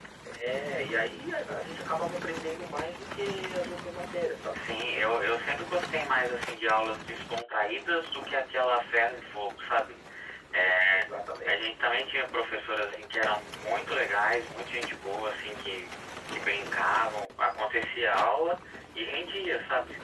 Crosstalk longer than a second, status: none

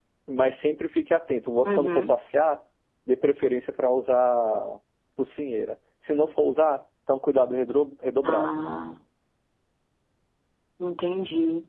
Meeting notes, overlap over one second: none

